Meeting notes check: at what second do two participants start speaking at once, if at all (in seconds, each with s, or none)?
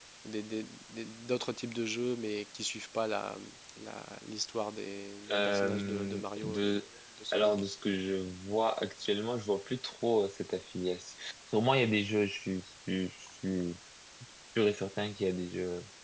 5.3 s